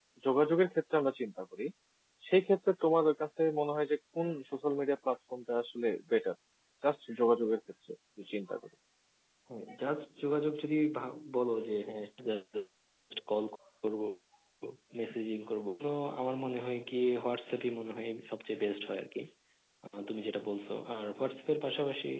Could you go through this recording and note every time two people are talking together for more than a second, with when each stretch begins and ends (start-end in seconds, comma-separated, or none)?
none